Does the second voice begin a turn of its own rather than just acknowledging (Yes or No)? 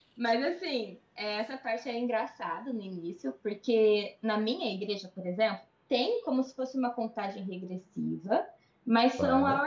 No